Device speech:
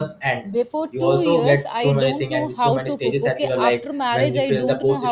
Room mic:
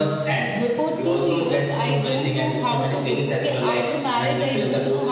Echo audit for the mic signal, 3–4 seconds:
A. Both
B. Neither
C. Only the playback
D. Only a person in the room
C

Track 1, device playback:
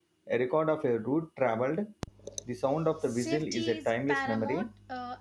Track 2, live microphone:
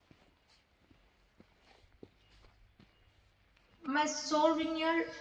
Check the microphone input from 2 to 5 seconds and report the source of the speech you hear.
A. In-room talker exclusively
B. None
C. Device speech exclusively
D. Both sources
A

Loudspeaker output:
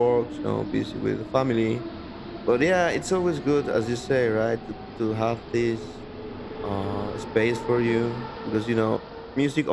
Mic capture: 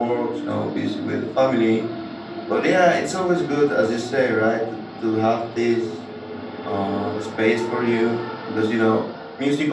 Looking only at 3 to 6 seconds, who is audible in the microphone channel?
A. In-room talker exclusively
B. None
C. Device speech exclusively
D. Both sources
C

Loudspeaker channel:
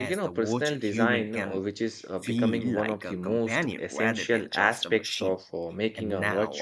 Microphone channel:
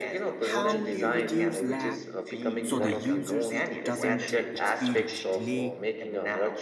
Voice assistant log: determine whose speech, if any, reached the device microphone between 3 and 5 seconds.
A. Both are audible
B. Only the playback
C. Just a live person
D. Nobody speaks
A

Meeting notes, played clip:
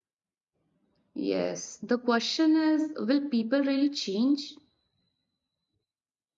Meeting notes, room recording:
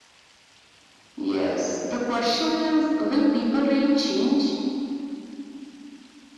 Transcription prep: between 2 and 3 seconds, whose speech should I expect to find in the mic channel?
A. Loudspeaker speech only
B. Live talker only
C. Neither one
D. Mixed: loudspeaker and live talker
A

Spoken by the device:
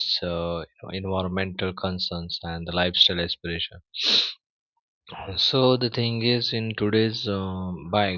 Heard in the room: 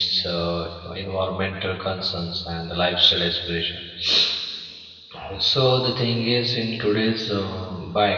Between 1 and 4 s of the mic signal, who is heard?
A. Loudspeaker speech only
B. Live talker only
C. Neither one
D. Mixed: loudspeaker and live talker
A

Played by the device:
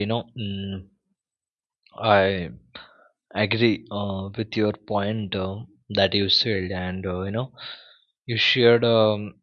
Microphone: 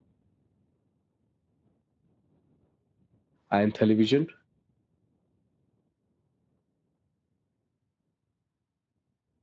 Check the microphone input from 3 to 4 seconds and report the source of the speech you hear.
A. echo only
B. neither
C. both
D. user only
D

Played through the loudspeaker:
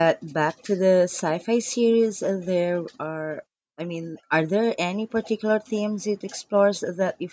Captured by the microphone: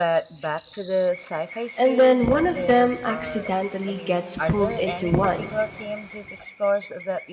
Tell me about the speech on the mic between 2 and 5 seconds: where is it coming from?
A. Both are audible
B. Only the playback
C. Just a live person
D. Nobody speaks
A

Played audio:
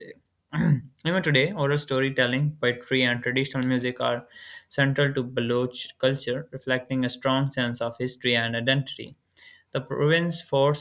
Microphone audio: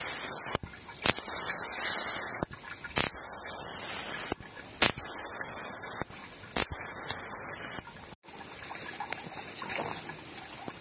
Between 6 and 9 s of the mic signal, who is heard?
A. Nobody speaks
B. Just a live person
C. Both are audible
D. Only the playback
A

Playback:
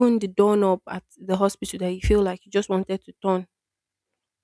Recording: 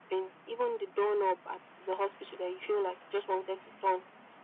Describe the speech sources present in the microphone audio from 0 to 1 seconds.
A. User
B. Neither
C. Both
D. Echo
D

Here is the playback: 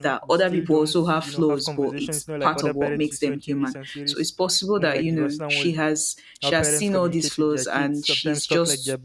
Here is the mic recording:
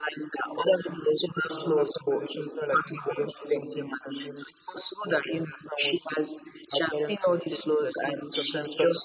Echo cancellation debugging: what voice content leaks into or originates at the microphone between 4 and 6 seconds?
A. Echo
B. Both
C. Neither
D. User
A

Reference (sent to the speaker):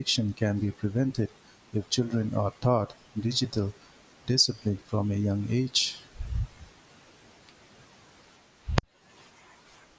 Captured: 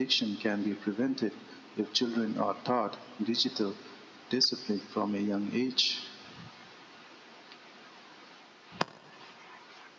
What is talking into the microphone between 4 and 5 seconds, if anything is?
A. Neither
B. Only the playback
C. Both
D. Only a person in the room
B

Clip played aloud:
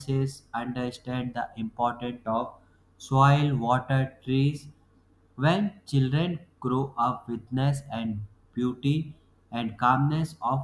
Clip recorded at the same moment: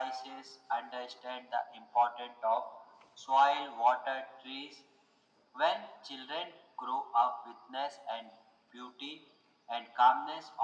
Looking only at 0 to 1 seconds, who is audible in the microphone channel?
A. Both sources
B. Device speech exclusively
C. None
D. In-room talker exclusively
B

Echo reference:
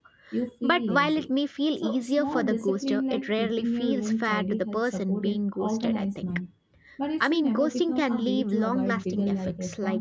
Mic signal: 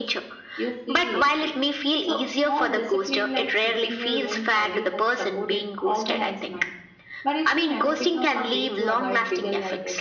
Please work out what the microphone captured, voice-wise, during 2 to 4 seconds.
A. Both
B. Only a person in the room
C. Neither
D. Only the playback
D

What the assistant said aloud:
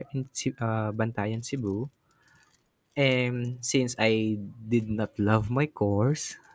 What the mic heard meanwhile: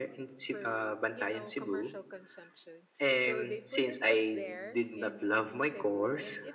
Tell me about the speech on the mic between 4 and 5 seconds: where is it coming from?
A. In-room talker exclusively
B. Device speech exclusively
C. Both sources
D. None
C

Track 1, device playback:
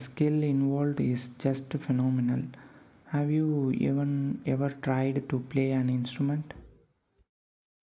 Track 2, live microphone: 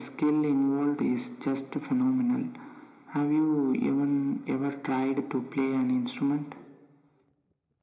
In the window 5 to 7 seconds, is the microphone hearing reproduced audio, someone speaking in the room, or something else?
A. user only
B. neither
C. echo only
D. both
C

